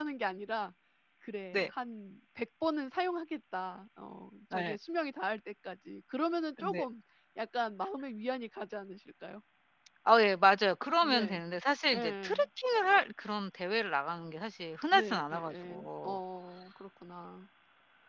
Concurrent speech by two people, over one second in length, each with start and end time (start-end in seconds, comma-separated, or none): 14.9-16.2